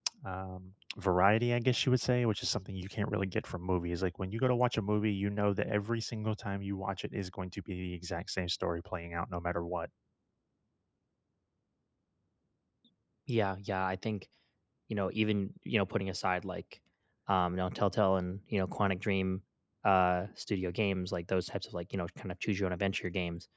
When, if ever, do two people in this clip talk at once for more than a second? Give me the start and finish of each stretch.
none

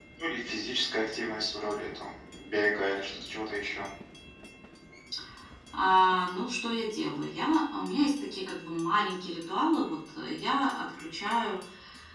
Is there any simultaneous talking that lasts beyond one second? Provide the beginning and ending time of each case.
none

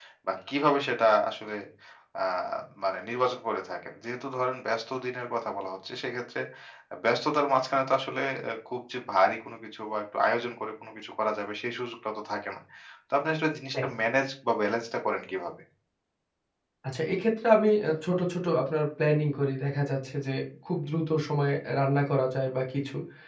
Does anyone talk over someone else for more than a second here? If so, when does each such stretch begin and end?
none

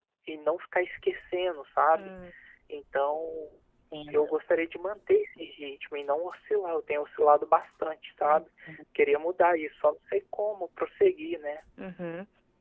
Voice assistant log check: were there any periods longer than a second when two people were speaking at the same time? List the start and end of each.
none

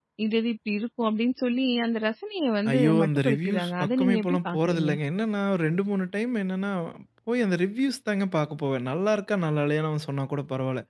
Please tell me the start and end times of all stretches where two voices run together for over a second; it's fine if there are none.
2.7-4.9

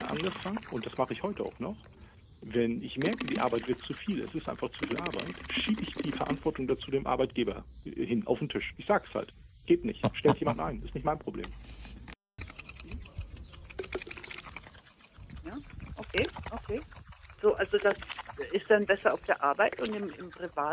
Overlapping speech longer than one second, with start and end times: none

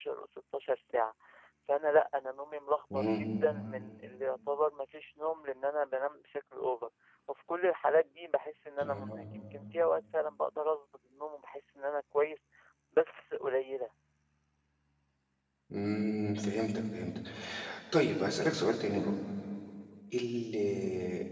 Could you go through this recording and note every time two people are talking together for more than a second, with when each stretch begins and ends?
none

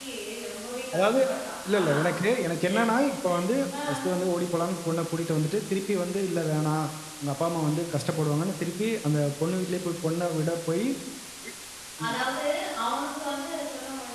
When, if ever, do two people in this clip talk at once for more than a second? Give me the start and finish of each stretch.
none

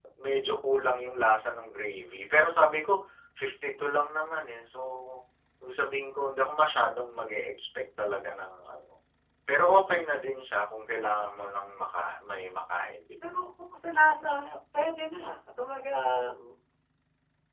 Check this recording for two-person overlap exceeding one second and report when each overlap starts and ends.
none

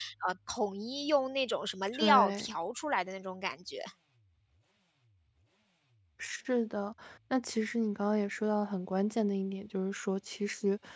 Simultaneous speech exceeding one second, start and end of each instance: none

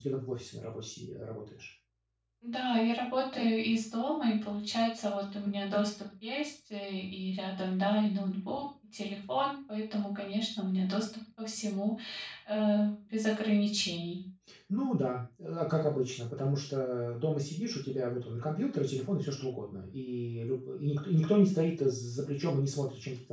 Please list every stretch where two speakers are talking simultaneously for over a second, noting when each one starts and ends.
none

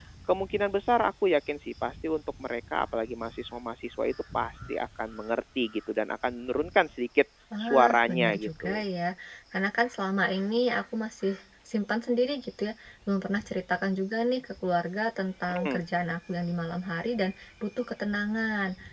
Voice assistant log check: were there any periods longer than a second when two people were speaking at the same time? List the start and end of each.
7.6-8.8

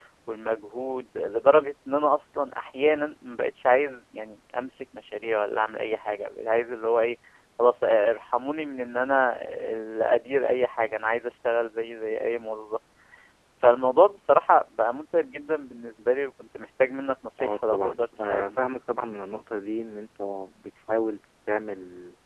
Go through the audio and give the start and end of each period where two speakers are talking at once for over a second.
17.4-18.6

